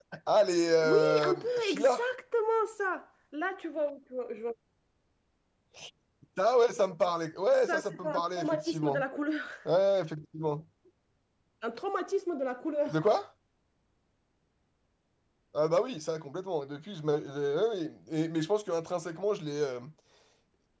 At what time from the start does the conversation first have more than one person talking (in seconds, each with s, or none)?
0.8 s